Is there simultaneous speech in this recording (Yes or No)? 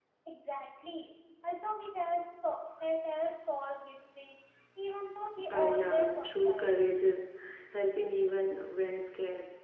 Yes